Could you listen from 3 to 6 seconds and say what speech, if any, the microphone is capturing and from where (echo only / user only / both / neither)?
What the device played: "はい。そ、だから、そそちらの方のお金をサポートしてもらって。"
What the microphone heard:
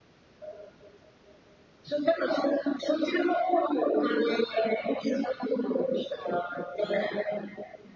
echo only